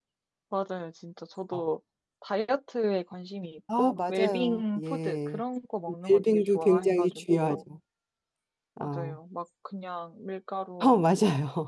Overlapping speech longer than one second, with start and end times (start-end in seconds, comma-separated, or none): 3.8-5.4, 6.1-7.6